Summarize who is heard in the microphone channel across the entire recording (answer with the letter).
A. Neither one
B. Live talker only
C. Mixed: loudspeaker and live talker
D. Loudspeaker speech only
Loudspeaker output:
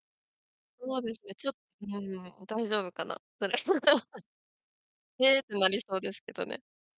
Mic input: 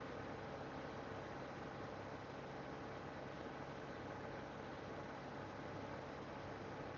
A